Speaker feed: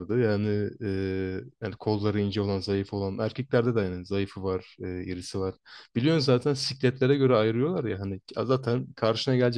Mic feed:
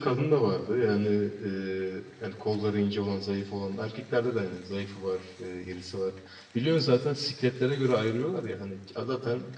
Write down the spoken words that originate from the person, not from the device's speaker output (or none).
none